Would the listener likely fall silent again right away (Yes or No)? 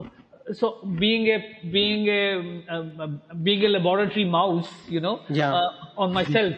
Yes